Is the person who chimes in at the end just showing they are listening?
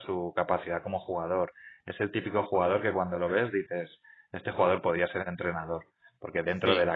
Yes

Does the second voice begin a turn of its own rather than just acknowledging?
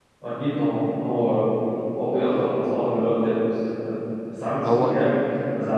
No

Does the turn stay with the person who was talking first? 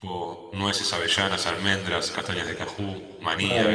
No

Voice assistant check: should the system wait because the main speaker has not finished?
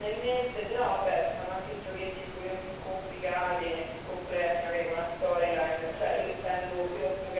Yes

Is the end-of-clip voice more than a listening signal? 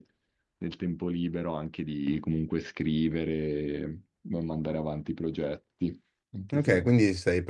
Yes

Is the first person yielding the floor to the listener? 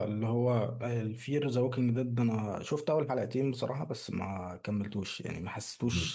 No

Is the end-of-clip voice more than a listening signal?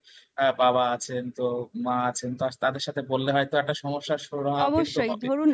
Yes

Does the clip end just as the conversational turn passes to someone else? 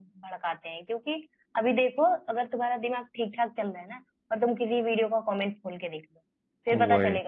No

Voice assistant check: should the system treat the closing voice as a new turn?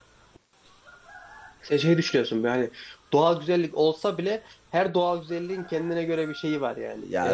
Yes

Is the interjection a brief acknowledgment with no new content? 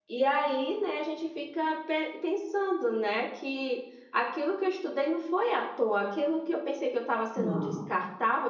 Yes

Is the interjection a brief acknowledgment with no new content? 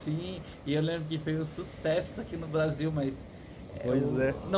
Yes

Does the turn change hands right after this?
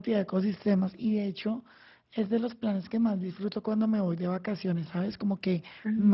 No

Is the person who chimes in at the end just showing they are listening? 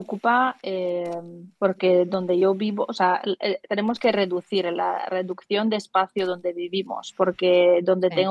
Yes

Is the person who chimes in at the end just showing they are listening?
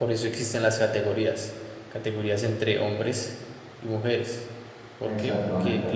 Yes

